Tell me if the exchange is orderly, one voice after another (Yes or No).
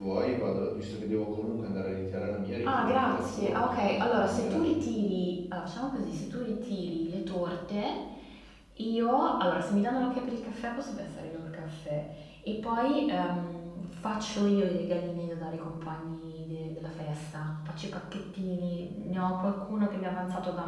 No